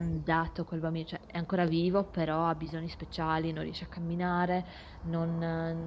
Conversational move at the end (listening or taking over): listening